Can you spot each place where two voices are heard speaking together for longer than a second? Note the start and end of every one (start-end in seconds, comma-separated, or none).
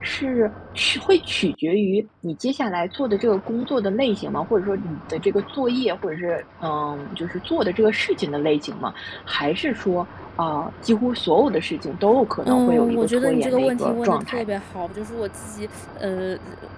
12.4-14.5